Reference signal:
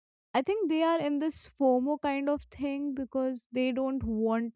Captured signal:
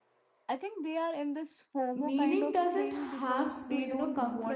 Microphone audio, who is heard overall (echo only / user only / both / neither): both